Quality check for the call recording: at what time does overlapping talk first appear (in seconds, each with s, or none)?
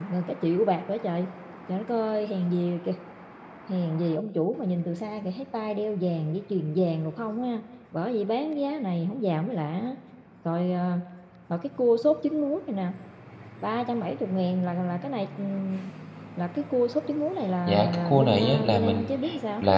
17.7 s